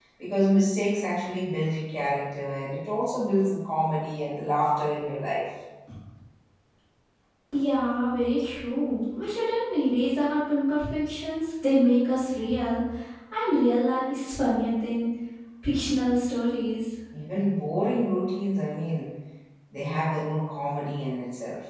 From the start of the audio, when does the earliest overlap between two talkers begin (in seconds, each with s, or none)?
none